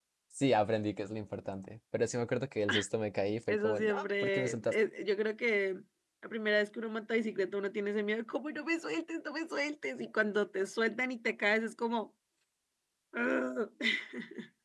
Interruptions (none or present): present